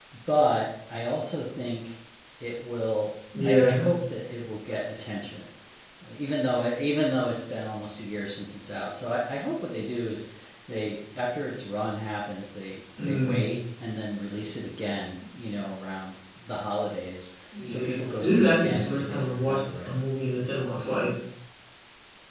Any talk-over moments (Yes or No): Yes